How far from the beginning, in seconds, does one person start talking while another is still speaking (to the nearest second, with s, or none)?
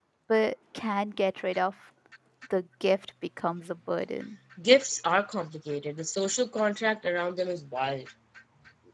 none